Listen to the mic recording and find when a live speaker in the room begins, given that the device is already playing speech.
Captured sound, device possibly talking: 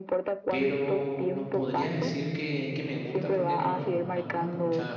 0.5 s

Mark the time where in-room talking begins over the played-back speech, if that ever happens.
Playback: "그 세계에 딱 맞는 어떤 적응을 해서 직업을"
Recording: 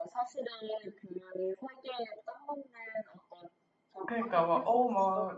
4.0 s

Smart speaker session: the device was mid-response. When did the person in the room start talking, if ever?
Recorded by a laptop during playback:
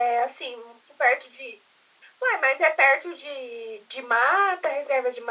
none

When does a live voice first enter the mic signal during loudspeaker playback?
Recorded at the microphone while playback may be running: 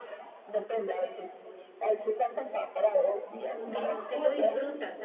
3.5 s

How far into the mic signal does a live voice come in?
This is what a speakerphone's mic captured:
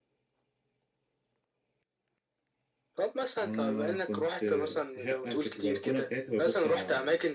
3.4 s

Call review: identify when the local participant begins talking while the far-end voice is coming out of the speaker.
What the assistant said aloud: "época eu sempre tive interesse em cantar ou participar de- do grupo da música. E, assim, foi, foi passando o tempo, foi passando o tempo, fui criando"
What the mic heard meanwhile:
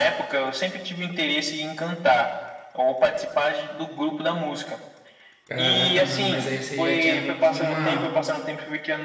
5.5 s

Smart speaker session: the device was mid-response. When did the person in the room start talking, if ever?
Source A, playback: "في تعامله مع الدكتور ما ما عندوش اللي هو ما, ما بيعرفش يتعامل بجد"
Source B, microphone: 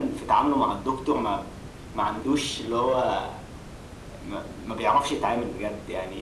none

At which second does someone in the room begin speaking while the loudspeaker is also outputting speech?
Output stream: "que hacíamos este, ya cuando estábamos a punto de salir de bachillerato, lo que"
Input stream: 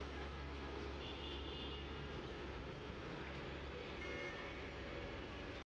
none

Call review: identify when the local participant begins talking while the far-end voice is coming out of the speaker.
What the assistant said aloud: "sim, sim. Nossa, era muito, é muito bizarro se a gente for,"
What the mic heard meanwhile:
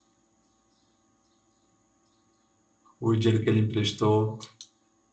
3.0 s

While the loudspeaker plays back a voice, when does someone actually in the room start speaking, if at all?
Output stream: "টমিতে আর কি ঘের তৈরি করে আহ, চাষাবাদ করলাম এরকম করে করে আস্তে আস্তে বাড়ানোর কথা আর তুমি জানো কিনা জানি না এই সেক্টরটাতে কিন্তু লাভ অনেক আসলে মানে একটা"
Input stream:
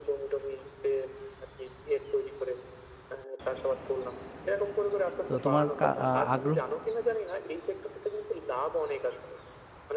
5.3 s

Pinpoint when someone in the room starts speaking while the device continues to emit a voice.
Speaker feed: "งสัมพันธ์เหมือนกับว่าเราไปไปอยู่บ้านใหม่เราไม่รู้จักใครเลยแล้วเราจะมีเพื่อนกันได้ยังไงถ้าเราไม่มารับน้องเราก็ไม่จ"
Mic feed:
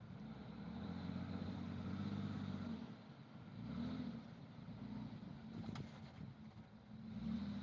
none

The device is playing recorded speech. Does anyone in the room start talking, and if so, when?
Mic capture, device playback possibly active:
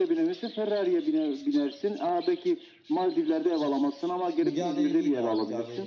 4.4 s

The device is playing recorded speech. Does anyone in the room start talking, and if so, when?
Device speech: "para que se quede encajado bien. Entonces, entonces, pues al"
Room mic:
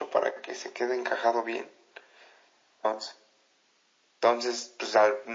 none

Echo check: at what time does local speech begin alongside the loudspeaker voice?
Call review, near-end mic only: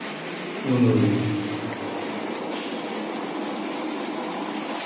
0.6 s

